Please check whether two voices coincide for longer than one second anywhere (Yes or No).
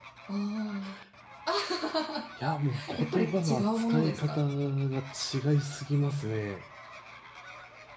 Yes